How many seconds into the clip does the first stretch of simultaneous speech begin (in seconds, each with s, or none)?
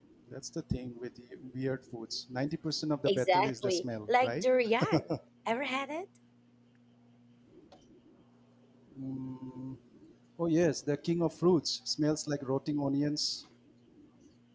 3.1 s